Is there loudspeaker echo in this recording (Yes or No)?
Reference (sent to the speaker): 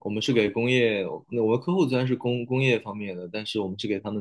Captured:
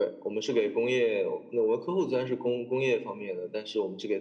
Yes